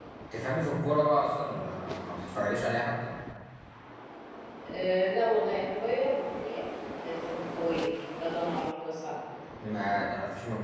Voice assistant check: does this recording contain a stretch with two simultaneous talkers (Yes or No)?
No